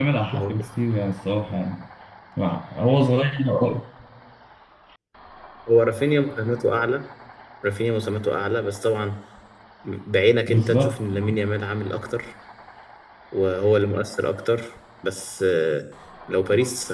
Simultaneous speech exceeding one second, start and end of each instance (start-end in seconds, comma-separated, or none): none